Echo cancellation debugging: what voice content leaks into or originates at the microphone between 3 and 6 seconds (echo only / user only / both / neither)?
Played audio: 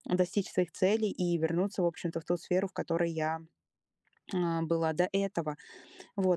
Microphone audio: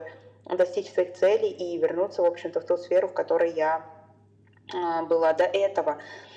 echo only